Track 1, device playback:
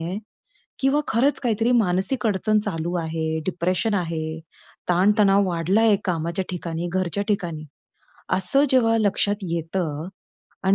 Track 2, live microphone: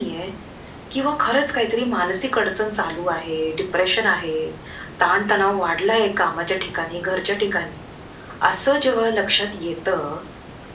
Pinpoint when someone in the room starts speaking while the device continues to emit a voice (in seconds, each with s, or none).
none